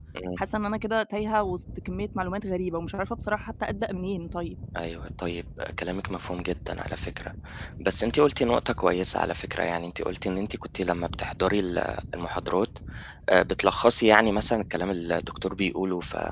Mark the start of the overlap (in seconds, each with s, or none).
none